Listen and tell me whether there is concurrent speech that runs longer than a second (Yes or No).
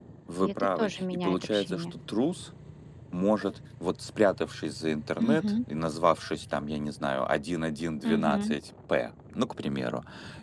Yes